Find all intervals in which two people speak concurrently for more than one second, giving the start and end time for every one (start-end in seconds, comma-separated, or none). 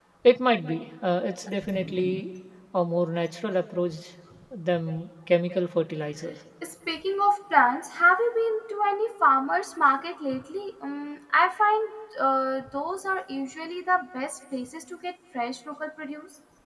none